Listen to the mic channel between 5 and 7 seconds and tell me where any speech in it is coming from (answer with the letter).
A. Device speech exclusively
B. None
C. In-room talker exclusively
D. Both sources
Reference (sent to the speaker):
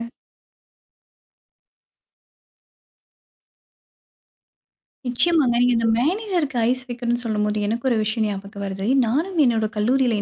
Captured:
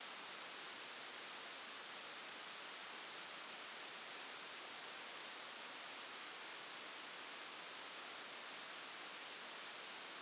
B